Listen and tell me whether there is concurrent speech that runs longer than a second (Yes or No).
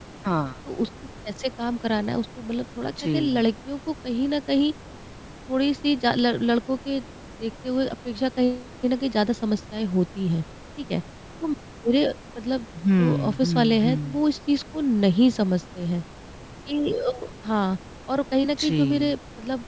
Yes